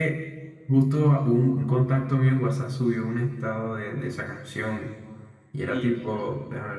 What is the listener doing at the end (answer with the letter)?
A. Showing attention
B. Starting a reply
A